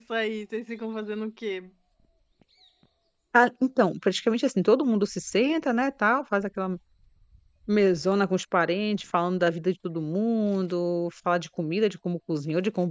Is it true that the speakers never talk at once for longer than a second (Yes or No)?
Yes